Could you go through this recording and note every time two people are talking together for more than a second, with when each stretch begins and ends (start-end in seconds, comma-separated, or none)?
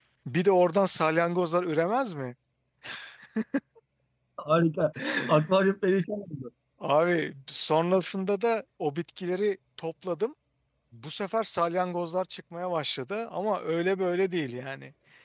none